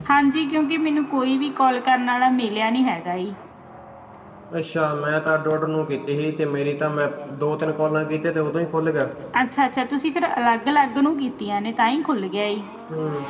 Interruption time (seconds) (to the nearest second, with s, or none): none